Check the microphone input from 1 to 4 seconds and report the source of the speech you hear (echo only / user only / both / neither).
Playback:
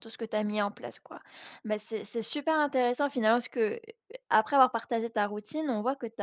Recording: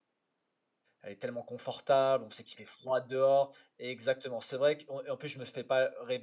user only